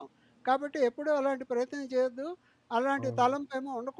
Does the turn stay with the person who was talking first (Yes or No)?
Yes